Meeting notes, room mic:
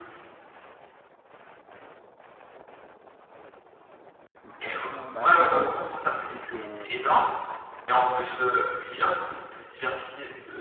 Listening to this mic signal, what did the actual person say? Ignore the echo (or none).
D'accord. Bah c'est intéressant puisque quand tu dis que